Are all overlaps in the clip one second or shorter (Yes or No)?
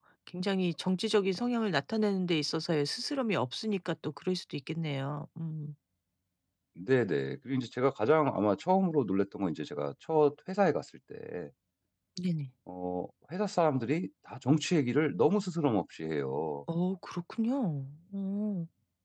Yes